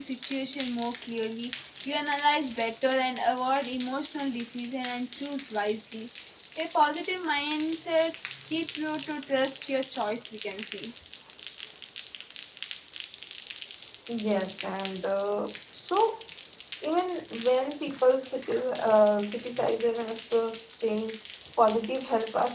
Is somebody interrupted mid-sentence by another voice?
No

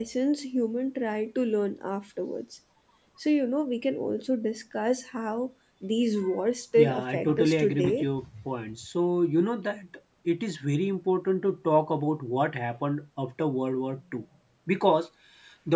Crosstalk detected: Yes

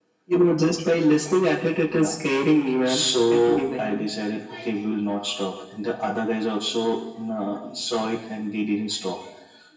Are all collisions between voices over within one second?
No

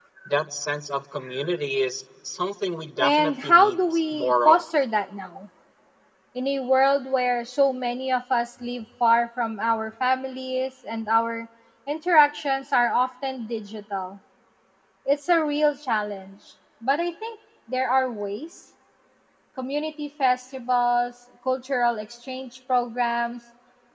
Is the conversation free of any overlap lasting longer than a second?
No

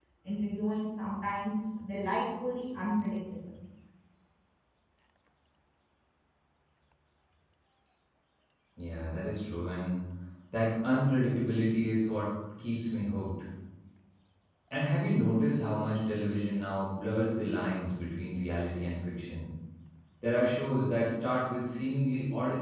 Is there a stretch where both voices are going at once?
No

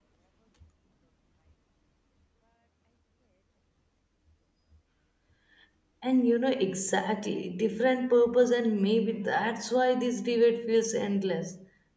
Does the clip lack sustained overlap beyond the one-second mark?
Yes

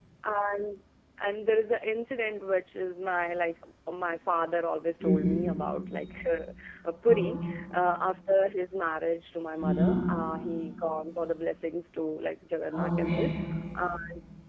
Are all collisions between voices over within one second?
Yes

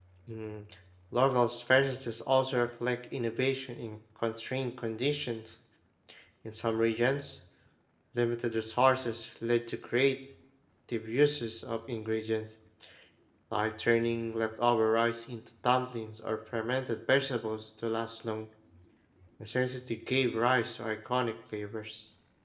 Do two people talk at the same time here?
No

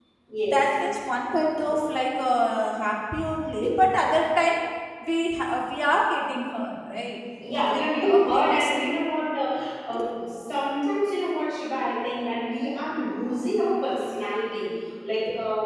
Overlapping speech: Yes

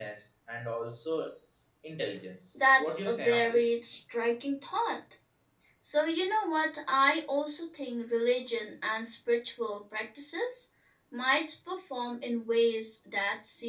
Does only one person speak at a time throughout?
No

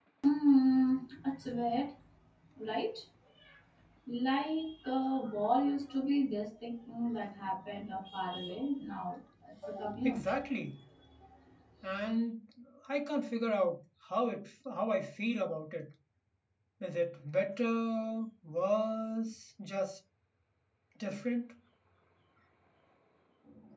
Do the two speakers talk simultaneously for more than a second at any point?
No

